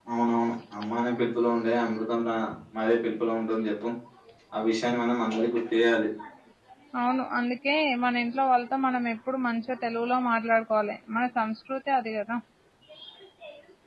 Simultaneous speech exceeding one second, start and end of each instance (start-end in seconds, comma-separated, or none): none